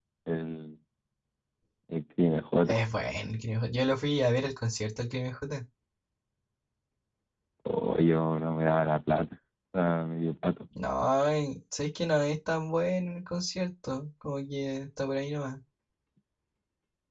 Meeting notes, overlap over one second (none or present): none